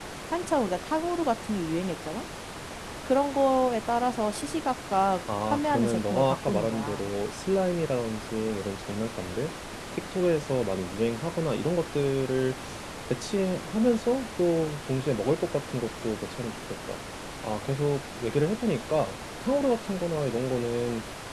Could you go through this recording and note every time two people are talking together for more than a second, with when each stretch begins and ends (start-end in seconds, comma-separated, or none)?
5.5-7.0